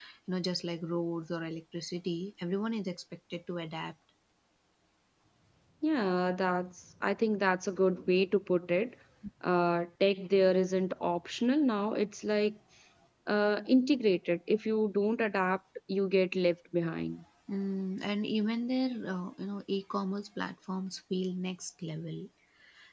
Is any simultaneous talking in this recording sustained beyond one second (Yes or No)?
No